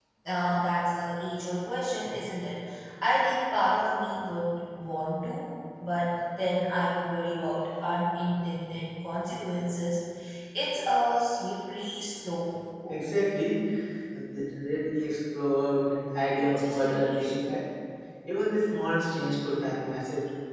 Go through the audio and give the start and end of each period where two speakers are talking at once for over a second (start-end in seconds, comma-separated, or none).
16.4-17.6